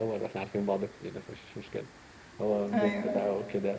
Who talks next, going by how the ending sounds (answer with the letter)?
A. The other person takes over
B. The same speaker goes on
B